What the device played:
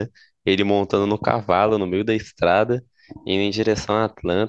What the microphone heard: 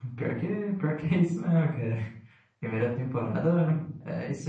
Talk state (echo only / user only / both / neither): user only